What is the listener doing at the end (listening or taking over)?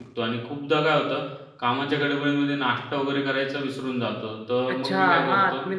taking over